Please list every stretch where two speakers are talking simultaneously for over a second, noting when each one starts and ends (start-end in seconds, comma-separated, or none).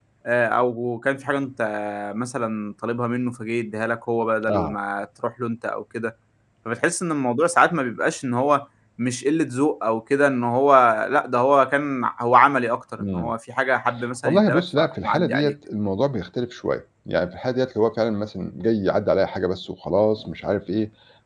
14.2-15.5